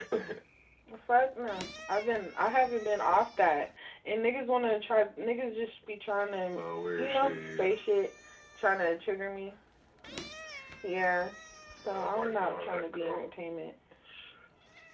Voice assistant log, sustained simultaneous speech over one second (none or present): present